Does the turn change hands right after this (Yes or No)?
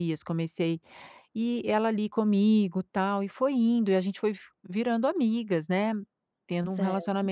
No